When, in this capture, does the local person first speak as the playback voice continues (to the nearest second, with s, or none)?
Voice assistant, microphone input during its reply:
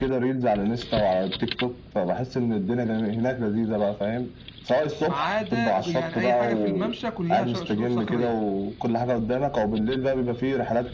5 s